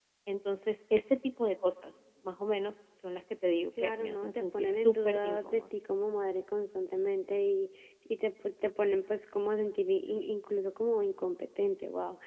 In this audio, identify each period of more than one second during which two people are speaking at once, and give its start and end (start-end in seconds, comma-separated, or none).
3.8-5.6